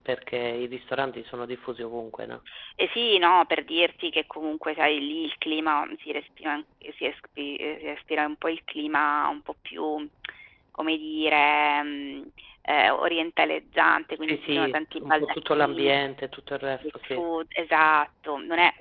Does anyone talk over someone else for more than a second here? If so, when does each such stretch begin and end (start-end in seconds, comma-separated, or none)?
14.1-15.9